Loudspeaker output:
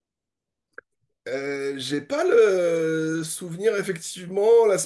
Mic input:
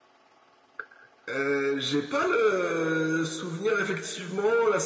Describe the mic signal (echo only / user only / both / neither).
echo only